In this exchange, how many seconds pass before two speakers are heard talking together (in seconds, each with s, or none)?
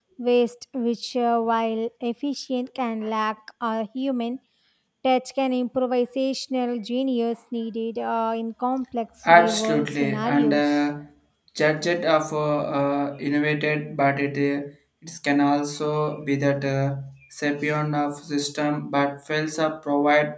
9.2 s